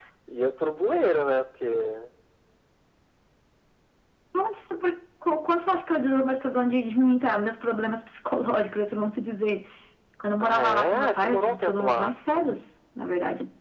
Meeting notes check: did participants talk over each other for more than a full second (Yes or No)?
Yes